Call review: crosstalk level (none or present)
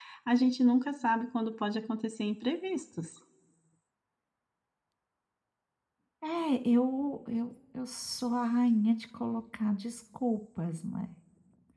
none